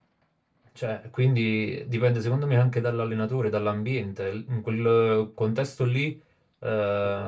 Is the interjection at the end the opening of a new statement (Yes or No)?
No